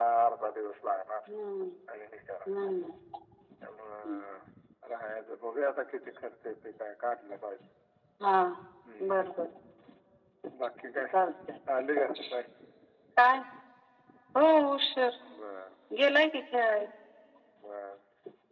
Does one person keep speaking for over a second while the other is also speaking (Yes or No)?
No